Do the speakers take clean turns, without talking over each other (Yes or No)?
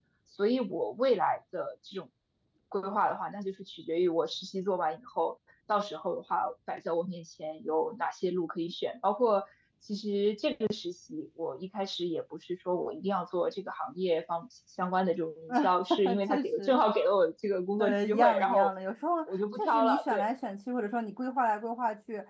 No